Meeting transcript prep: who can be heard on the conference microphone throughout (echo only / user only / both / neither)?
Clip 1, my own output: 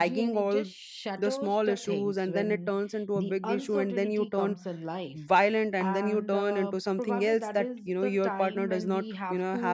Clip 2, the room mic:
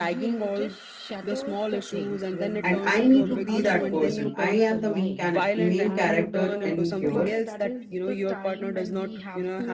both